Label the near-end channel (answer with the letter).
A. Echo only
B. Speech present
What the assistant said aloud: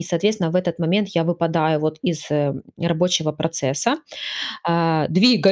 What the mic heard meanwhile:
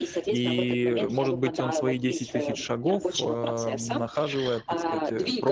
B